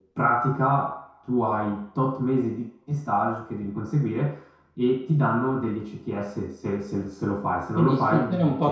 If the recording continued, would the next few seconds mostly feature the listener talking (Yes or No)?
Yes